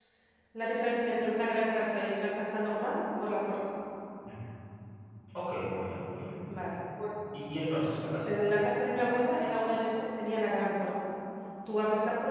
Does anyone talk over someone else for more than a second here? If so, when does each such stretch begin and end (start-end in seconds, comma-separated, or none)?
none